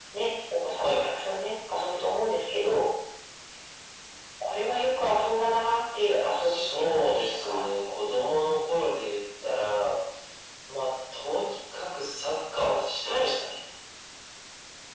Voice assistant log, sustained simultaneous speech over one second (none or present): present